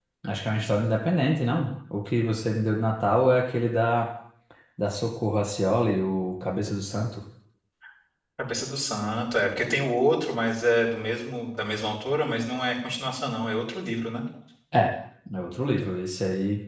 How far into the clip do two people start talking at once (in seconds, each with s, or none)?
none